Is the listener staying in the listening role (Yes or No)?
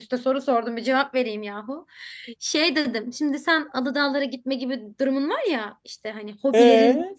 Yes